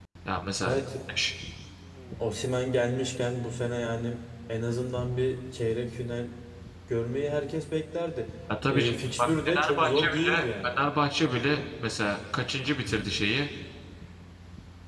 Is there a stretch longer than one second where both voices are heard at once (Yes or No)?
Yes